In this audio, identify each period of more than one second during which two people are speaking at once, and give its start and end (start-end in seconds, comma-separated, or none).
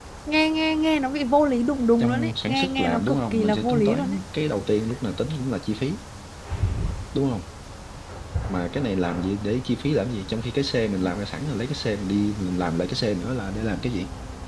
2.0-4.2